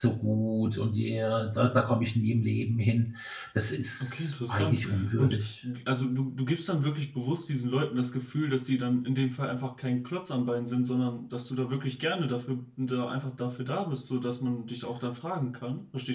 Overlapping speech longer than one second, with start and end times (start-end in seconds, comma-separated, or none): 4.0-5.5